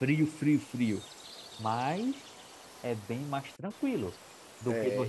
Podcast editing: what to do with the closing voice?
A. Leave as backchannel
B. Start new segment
B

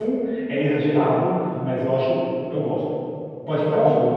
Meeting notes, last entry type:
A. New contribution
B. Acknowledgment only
B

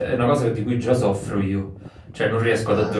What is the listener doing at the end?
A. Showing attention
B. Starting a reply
A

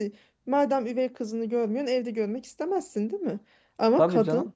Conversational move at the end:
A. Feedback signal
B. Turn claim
A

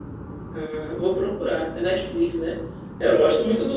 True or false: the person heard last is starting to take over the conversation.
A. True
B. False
B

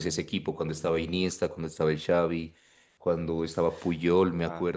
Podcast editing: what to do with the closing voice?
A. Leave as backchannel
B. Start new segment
A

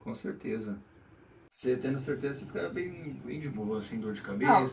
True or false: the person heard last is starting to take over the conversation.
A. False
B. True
B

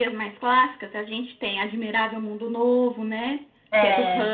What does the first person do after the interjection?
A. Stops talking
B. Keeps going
B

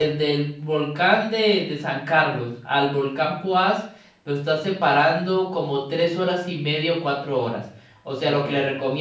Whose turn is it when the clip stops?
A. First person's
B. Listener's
A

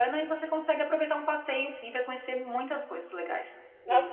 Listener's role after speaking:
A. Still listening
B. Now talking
B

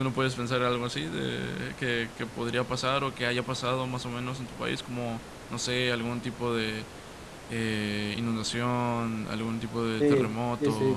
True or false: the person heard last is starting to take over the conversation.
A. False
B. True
B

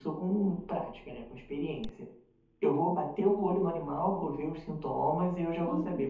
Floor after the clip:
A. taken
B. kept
B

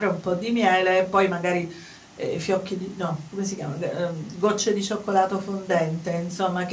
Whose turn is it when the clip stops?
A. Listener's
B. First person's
B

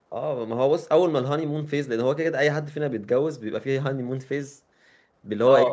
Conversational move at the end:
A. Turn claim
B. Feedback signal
B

